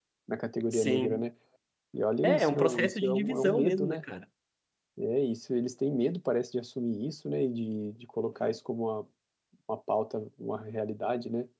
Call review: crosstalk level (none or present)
present